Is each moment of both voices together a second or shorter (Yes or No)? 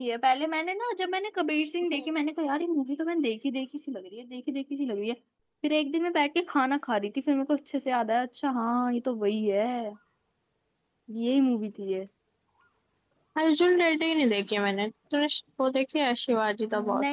Yes